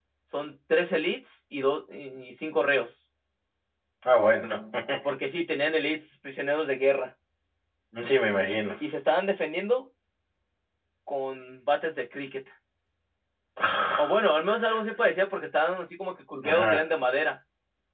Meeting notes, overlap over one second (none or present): none